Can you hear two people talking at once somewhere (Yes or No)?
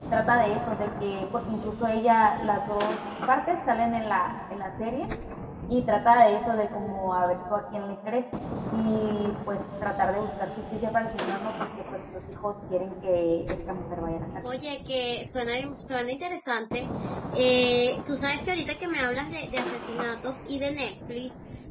No